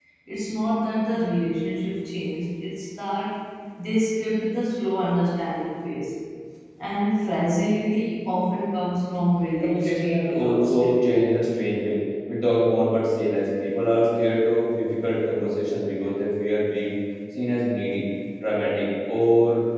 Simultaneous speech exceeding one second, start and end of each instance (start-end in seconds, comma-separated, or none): 9.6-11.2